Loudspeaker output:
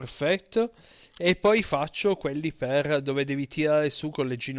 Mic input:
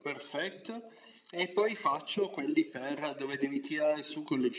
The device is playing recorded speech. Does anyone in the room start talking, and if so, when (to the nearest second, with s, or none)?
none